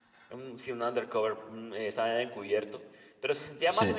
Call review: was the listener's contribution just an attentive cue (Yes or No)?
Yes